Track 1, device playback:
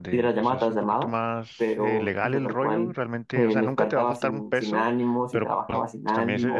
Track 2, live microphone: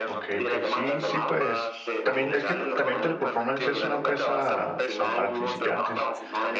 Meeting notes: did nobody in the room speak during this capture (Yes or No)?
No